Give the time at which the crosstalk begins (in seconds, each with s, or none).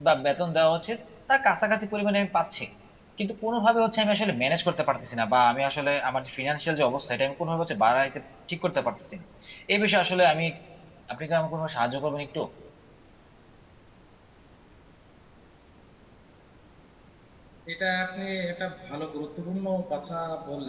none